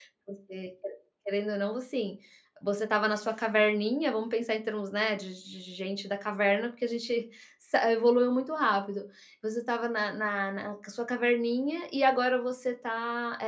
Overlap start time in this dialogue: none

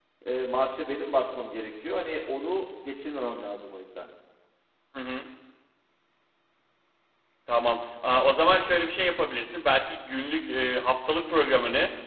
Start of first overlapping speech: none

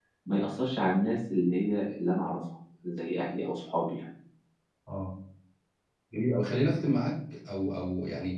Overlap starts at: none

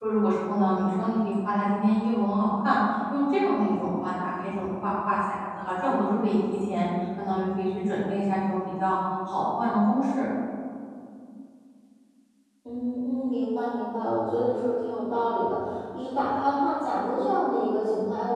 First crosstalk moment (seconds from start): none

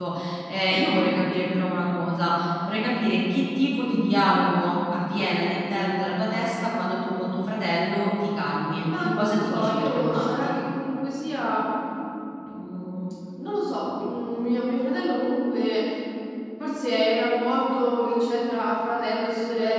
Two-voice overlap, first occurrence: 8.8 s

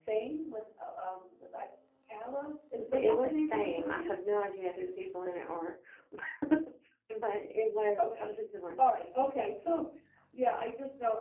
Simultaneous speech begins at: 2.8 s

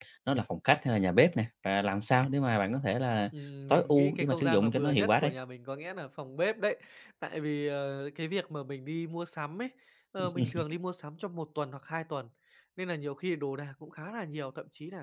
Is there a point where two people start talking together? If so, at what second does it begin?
3.7 s

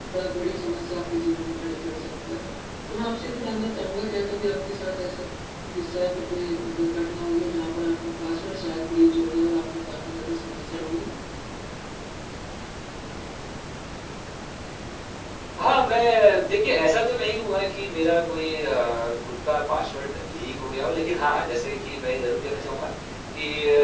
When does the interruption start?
none

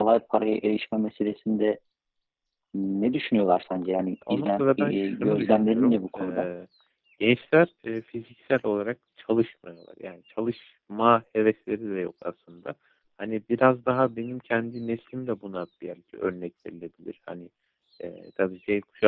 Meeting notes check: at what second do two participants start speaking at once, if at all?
4.2 s

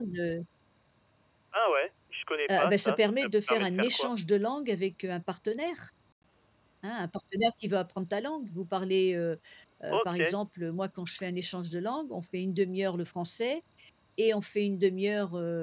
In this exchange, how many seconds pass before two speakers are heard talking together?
2.5 s

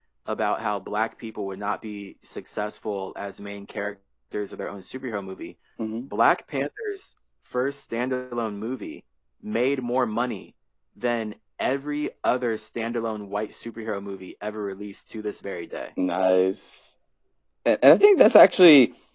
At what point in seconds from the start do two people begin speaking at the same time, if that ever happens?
none

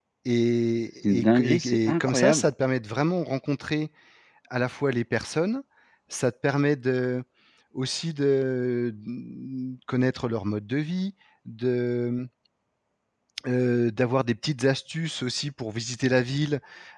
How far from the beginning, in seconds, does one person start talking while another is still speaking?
1.1 s

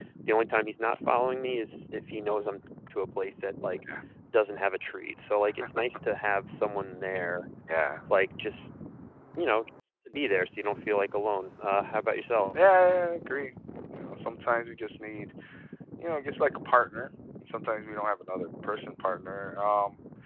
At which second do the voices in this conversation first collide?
none

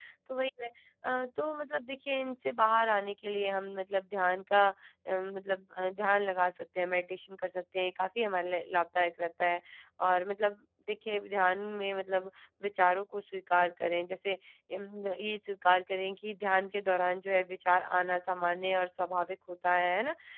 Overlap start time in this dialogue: none

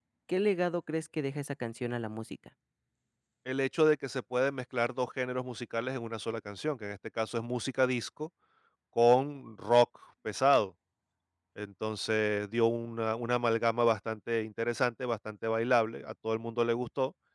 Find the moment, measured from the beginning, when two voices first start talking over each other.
none

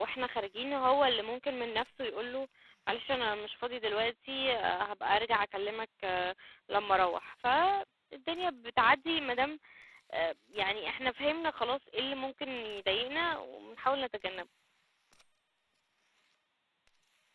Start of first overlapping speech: none

